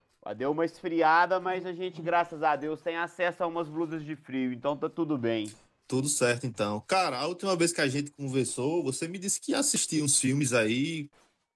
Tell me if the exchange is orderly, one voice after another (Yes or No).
Yes